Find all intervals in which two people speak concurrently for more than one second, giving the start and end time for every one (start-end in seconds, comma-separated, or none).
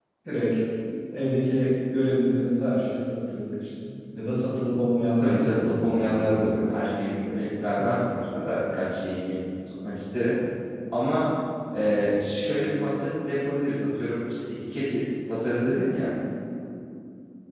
5.2-6.5